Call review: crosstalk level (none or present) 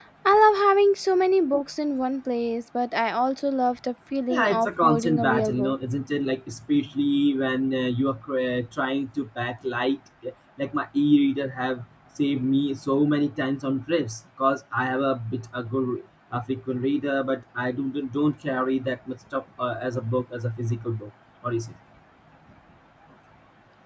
present